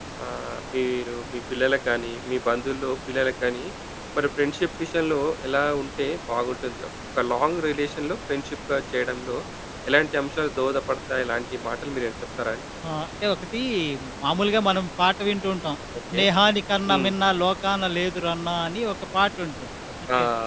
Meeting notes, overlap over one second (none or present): none